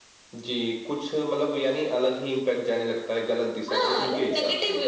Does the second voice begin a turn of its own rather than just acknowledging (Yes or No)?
Yes